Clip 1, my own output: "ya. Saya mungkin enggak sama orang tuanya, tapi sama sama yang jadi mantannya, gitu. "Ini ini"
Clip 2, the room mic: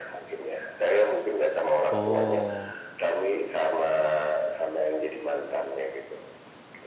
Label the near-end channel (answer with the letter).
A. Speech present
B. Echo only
A